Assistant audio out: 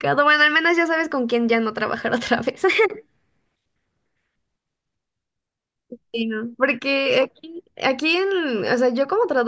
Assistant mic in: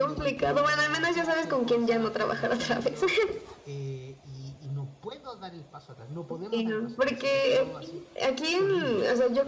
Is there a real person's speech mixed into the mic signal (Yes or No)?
Yes